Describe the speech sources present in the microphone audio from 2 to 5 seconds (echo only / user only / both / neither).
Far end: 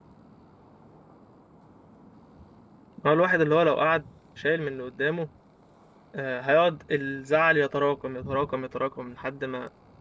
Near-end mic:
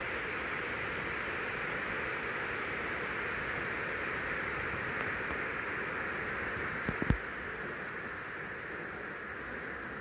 neither